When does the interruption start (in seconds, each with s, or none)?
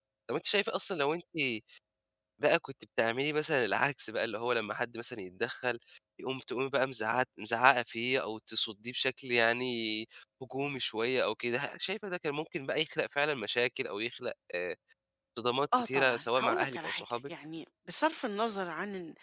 15.8 s